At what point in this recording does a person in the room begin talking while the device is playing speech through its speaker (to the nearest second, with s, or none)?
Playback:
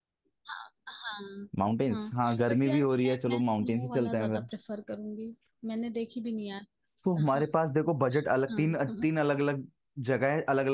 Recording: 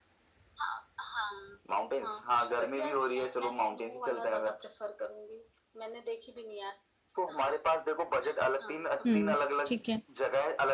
9 s